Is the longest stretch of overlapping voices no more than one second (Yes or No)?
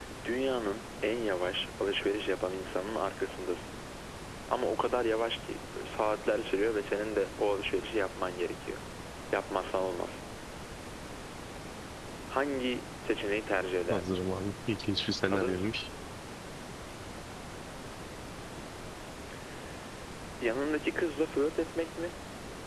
Yes